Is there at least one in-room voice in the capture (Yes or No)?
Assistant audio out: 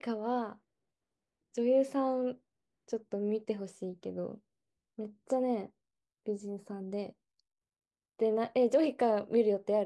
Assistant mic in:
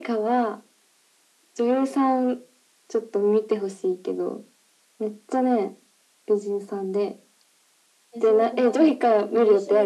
Yes